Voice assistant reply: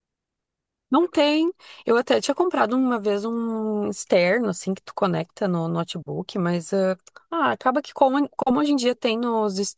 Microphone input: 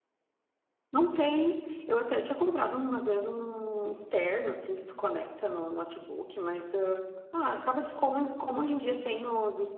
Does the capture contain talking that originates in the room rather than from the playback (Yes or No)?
No